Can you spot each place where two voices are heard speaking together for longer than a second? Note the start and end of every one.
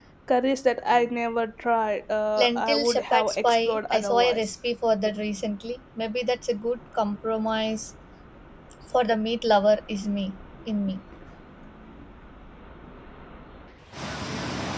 2.4-4.5

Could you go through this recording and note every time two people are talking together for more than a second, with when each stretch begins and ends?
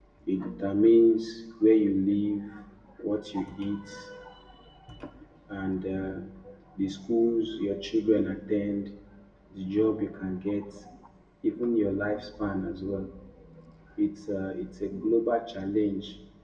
none

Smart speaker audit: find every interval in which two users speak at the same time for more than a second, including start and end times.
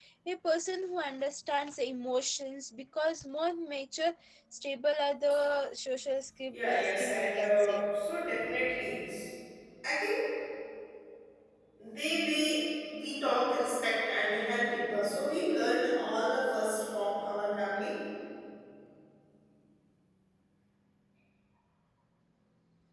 6.5-7.8

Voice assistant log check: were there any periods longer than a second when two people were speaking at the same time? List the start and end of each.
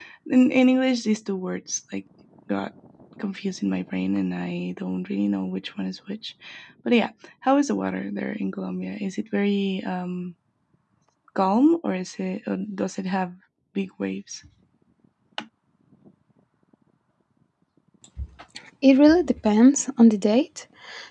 none

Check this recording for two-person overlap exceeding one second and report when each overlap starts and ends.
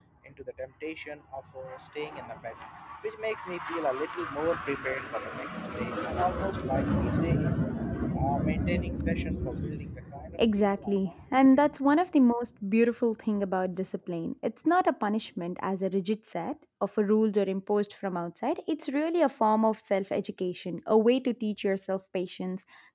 10.4-11.7

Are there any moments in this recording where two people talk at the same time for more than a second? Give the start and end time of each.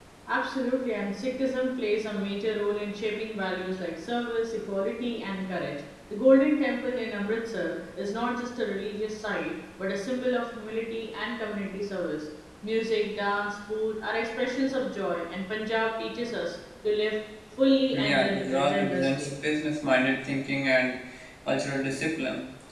17.9-19.3

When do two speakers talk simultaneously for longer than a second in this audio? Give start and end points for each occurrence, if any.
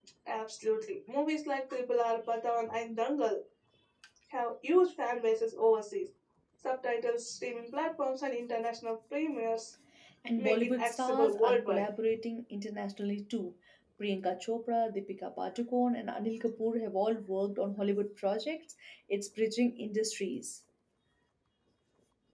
10.4-11.8

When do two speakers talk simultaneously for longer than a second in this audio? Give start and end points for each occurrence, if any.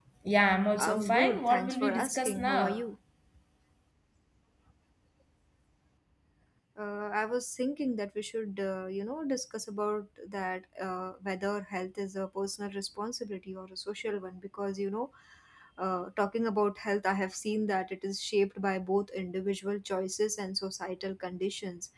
0.8-2.9

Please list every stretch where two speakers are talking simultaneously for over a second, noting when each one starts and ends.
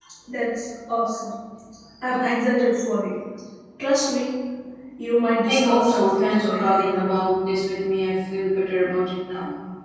5.4-7.1

